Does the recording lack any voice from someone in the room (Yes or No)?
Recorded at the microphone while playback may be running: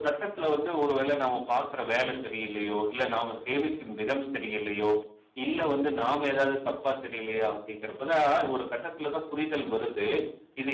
Yes